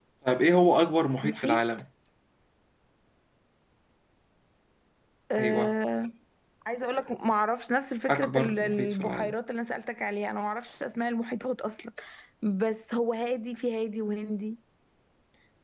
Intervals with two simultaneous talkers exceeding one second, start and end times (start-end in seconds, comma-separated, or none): 8.1-9.3